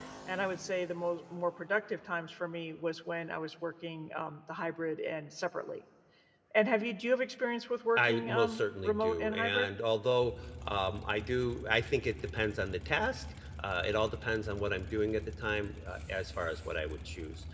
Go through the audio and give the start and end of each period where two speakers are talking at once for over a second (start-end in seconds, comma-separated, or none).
8.0-9.7